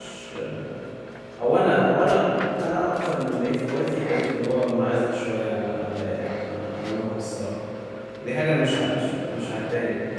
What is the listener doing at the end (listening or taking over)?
listening